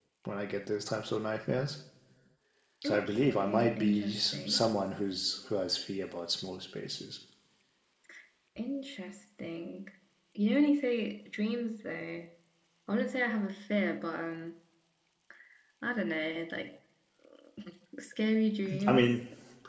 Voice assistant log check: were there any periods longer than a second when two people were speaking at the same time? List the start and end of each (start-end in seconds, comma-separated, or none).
2.9-4.7